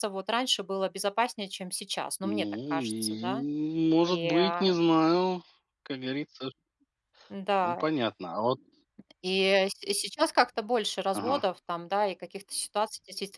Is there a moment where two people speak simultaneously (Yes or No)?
Yes